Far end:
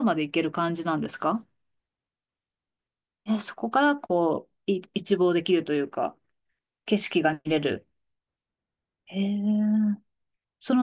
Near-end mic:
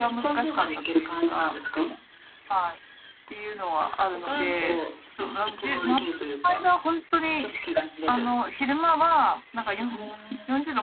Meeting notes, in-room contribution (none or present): present